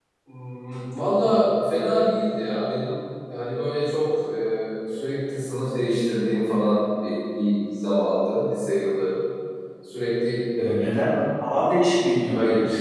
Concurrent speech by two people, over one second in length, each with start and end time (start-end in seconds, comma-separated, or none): none